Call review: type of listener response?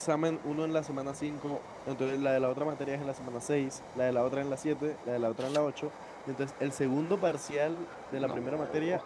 listening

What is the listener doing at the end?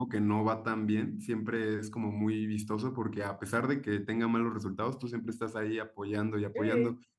listening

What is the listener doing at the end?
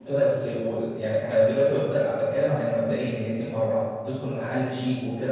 listening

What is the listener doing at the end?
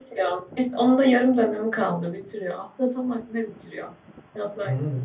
taking over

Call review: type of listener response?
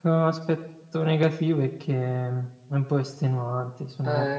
taking over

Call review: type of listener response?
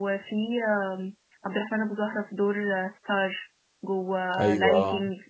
listening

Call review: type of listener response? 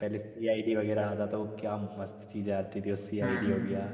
listening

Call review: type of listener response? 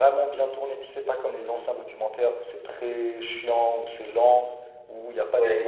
listening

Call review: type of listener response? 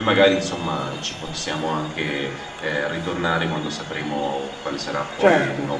taking over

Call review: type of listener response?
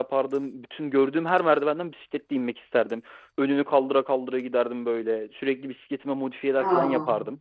listening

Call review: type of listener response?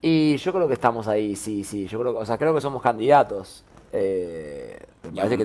listening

